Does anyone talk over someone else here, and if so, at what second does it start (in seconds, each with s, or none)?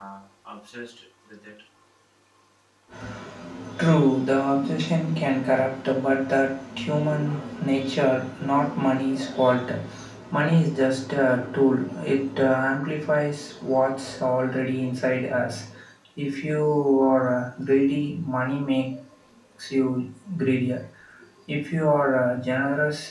none